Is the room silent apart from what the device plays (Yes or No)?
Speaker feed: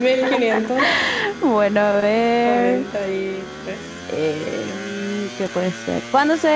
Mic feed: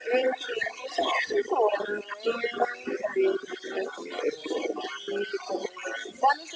Yes